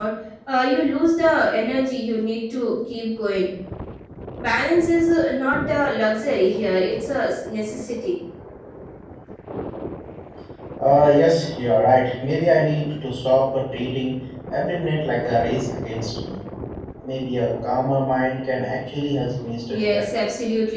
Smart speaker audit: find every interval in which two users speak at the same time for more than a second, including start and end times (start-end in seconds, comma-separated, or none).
none